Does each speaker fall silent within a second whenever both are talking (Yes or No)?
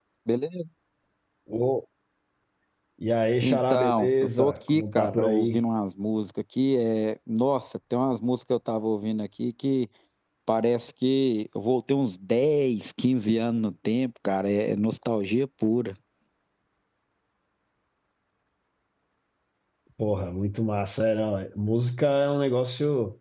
No